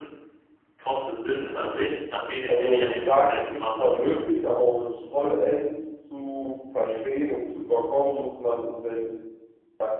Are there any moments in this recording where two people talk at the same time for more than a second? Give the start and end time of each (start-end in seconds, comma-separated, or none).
2.5-3.9